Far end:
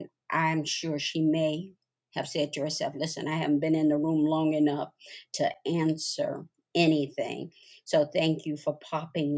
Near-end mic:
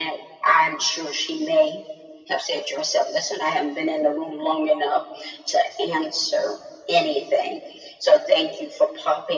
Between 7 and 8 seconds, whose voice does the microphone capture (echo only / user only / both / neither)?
echo only